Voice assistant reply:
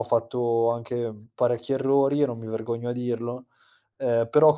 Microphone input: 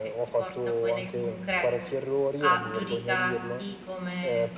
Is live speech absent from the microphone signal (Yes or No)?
No